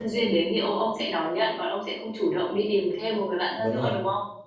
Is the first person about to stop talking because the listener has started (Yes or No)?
Yes